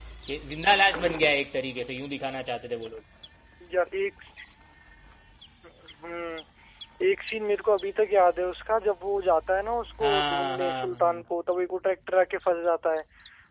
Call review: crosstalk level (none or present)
present